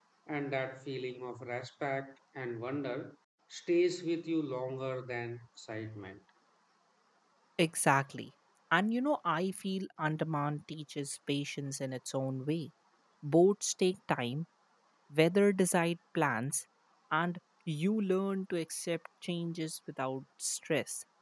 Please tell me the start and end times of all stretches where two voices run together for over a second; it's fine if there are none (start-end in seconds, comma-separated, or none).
none